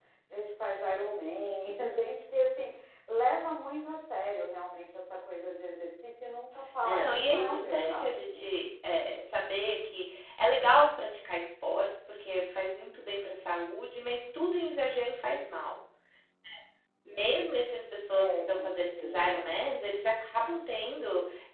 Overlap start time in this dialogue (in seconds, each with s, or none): 6.8 s